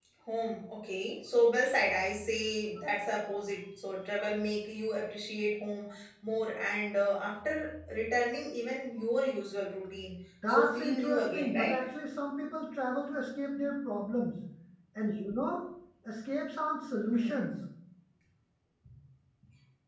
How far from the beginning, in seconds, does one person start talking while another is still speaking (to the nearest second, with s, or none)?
11 s